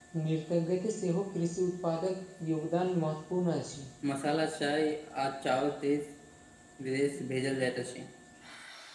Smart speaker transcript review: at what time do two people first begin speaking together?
none

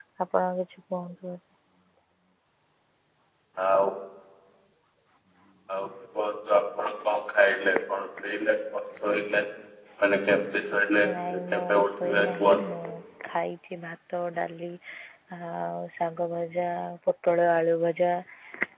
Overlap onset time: 11 s

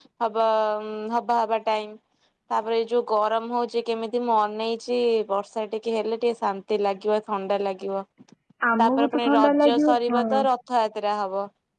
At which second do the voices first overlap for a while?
9 s

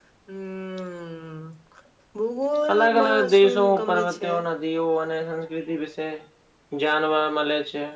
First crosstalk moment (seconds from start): 3 s

